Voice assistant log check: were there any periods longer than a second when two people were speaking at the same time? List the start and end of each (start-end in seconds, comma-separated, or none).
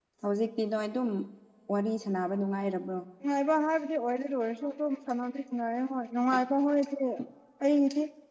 none